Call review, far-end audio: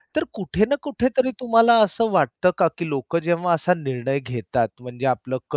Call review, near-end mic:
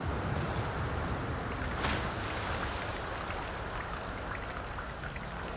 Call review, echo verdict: none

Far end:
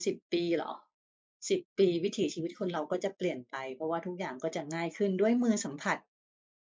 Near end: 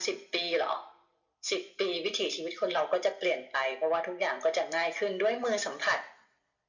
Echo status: present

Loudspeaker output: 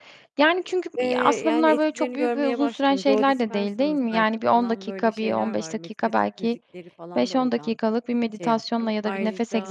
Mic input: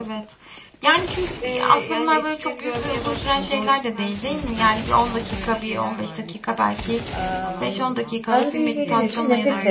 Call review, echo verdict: present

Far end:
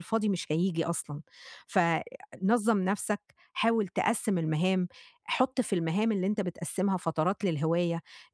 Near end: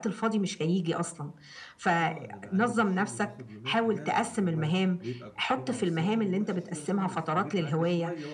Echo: present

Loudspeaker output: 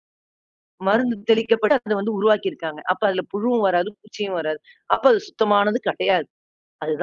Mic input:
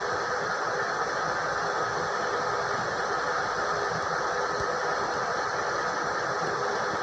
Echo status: none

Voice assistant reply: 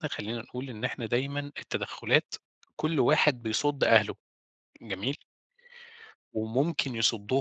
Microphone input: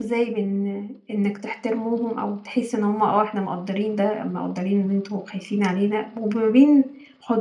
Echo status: none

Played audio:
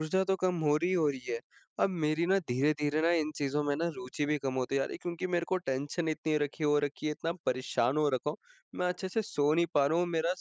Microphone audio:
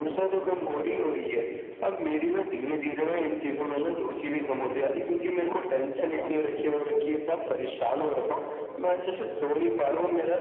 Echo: present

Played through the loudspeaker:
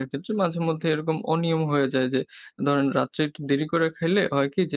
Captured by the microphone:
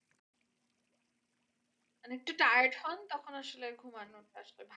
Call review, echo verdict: none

